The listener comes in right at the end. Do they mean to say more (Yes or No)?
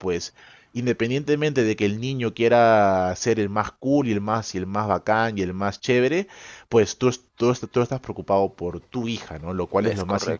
No